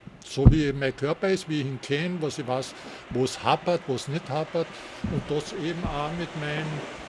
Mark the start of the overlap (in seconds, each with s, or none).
none